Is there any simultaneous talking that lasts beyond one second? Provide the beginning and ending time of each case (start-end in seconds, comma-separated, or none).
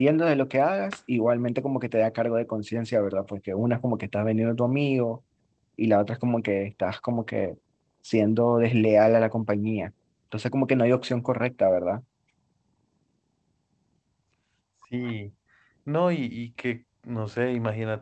none